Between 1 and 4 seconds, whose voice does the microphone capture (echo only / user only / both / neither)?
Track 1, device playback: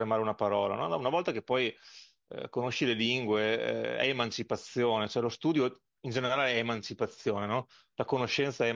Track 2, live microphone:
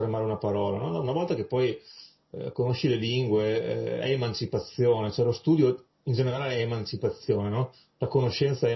echo only